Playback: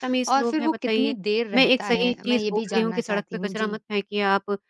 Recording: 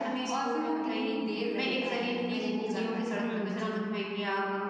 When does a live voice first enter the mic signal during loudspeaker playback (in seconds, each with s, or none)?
3.2 s